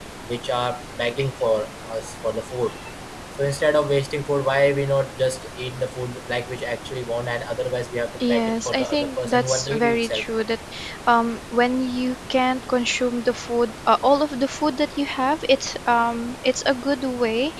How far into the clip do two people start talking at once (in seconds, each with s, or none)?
8.2 s